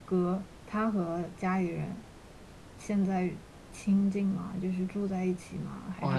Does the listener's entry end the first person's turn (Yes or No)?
Yes